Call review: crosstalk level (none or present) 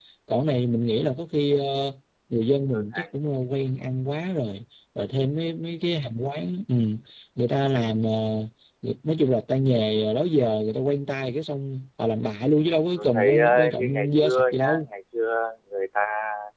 present